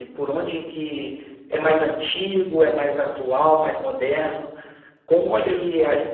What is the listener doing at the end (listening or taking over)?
listening